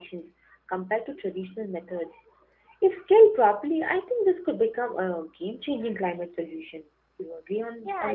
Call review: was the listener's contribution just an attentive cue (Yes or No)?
No